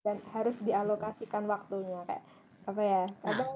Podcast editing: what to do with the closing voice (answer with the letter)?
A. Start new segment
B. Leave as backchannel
B